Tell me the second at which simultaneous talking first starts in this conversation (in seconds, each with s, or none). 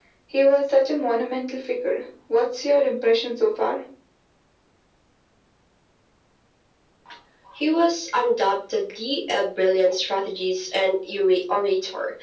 none